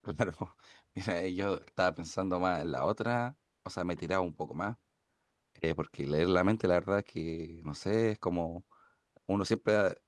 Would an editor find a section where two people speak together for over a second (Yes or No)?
No